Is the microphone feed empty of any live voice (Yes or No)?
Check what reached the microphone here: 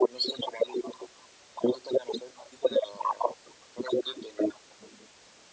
Yes